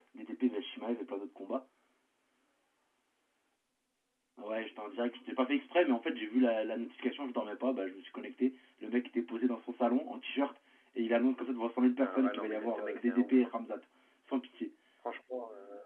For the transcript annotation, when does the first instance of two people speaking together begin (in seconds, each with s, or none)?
12.0 s